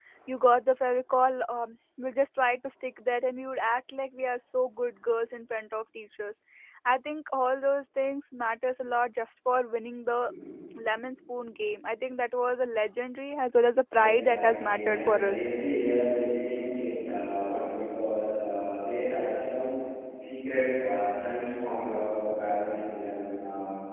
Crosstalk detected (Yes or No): Yes